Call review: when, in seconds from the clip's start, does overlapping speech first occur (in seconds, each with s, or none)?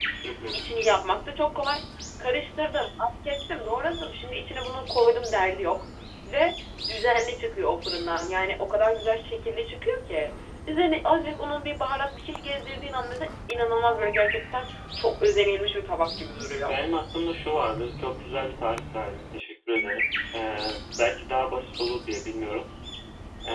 none